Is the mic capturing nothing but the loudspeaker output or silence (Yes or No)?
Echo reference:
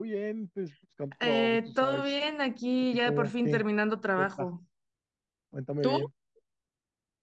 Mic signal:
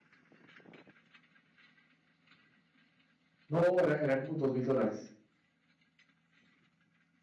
No